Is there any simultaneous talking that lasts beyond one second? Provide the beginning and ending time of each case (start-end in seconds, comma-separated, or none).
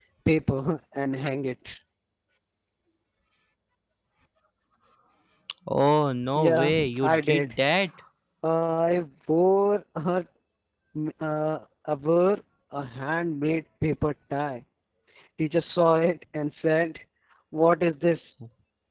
6.3-7.6